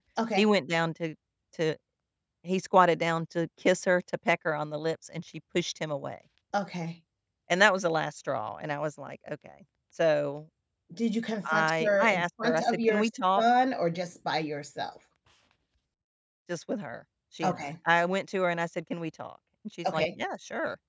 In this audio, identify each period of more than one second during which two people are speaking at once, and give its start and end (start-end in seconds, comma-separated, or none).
11.4-13.0